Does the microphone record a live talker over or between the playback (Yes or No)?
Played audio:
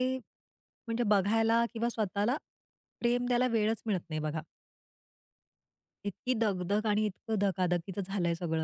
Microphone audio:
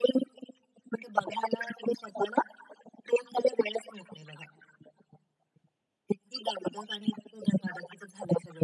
No